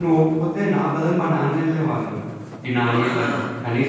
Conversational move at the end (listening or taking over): listening